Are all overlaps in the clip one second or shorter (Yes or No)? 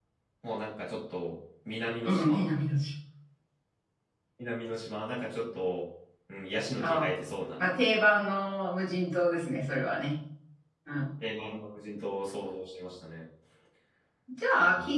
Yes